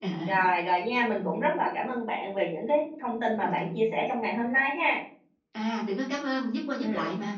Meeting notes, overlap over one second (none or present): none